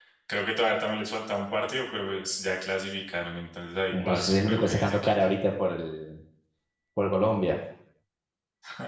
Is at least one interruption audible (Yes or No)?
Yes